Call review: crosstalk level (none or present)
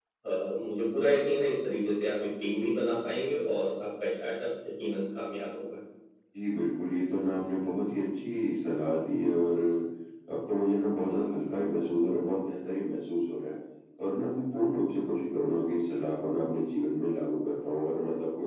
none